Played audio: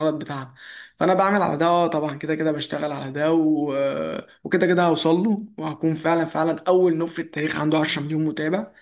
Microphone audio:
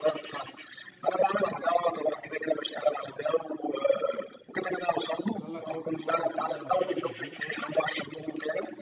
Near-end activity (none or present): present